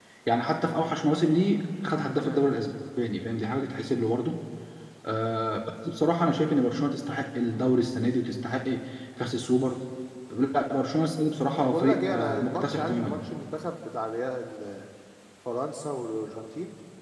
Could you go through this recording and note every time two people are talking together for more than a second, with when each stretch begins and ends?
11.7-13.2

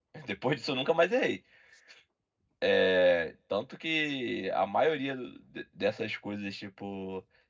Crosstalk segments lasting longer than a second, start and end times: none

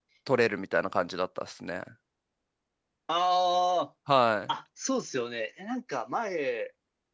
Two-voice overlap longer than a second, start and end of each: none

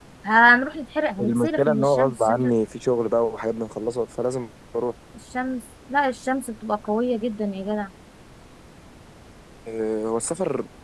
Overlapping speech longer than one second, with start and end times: 1.2-2.4

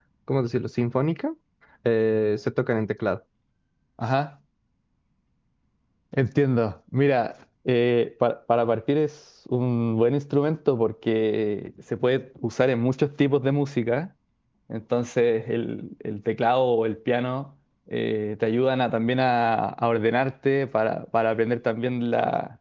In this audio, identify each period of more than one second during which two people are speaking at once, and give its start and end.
none

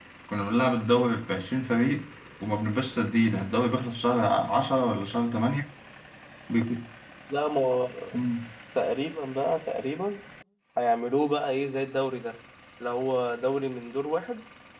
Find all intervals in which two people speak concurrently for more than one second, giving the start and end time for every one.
none

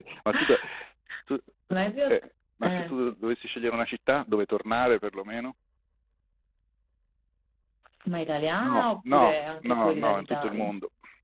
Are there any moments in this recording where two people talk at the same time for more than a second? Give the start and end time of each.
8.6-10.6

